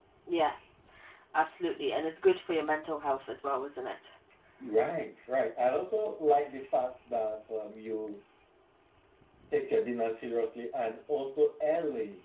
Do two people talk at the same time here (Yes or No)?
No